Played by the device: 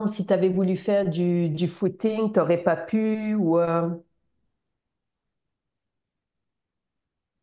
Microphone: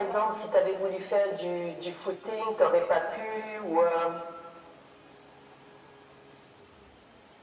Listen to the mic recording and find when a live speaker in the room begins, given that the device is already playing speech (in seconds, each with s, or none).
none